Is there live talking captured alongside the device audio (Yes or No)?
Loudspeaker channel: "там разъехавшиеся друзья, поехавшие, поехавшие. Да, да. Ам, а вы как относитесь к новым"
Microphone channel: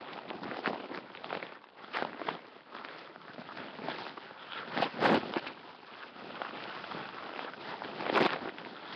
No